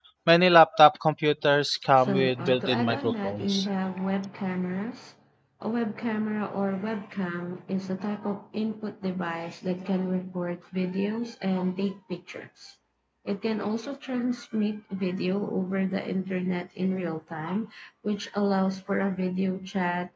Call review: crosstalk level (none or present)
present